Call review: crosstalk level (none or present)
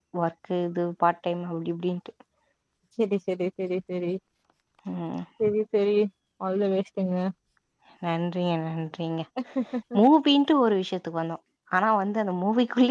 none